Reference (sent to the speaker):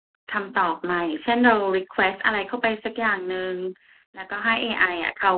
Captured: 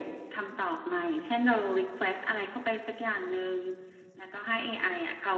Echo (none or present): present